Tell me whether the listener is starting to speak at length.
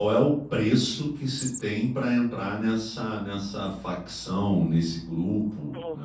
Yes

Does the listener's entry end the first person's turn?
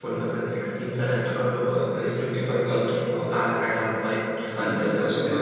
Yes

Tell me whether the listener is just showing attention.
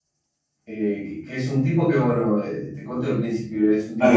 Yes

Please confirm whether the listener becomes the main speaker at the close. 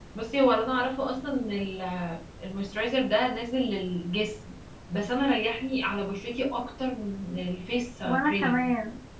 Yes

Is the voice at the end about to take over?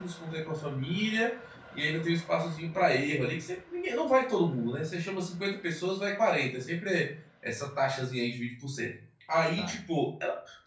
No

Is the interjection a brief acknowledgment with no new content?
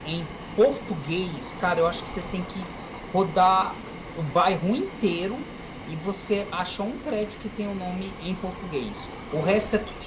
Yes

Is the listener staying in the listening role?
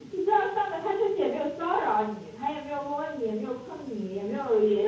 No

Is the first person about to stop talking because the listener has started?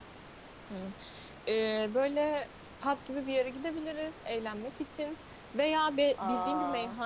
No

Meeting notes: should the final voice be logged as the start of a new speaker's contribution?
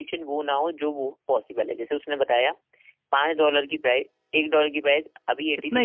Yes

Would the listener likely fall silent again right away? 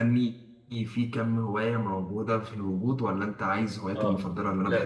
No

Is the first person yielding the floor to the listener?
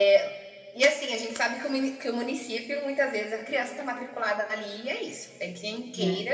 No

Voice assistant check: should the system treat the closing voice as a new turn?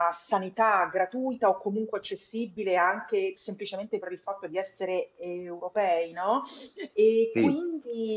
No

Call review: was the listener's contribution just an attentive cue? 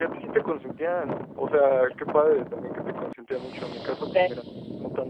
Yes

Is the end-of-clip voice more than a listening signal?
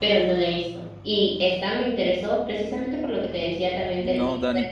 Yes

